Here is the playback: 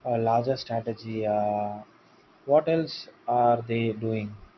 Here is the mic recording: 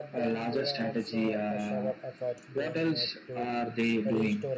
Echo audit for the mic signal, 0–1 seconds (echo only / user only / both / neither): both